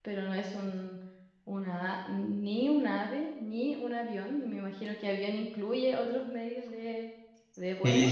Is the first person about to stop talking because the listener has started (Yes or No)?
Yes